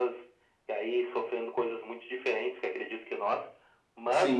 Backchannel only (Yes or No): No